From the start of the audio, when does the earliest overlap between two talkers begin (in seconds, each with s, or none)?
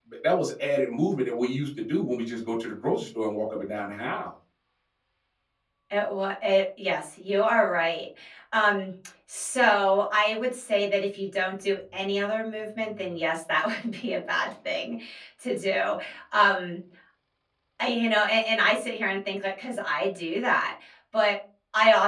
none